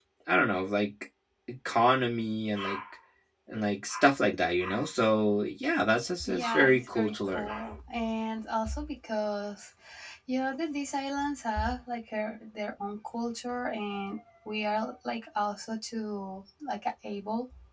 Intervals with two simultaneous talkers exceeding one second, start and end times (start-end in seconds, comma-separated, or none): 6.2-7.5